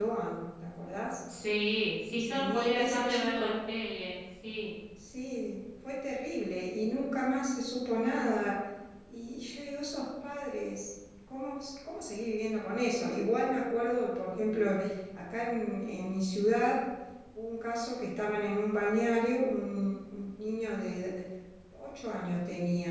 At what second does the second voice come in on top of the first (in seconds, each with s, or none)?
2.1 s